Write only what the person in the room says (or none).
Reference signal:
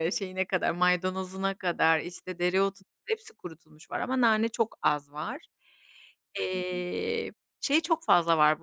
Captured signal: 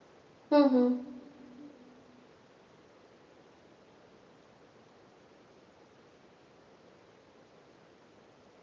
Hı hı.